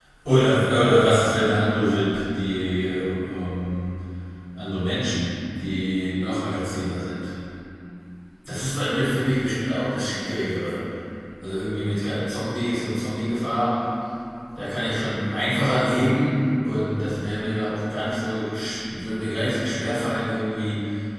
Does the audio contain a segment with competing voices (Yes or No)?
No